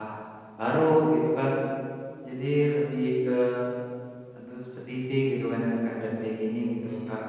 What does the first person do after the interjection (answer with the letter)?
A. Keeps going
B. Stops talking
B